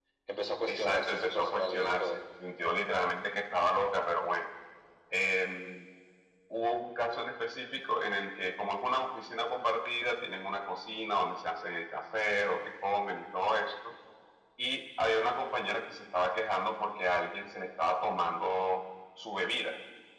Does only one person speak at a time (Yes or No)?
No